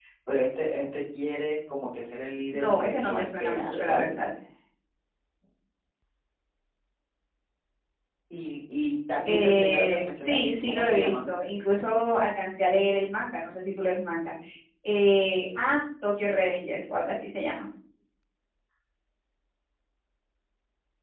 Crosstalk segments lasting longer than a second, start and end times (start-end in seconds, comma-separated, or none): 2.5-4.2, 9.2-11.2